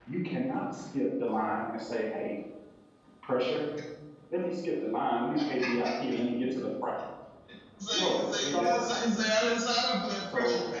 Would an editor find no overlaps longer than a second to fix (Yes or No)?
No